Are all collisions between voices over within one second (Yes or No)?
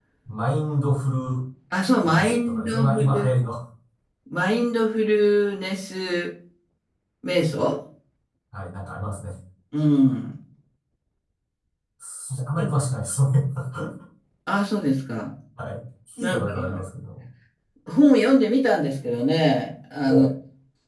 No